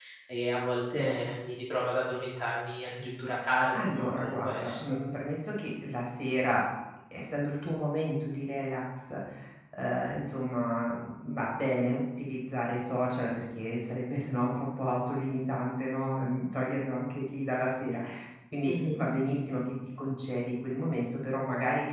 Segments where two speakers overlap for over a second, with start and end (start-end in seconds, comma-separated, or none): 3.7-5.0